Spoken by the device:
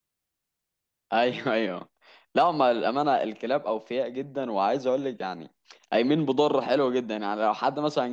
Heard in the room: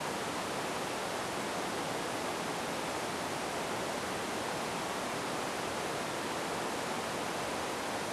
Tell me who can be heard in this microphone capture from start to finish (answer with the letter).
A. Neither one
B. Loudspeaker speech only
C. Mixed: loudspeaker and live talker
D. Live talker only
A